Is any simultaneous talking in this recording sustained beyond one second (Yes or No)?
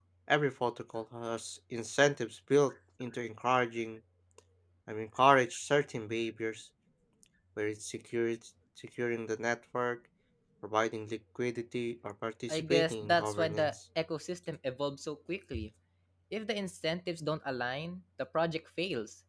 Yes